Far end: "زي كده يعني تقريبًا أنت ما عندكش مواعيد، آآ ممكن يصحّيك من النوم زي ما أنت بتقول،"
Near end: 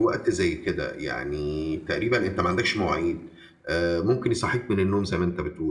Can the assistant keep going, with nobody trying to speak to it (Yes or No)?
Yes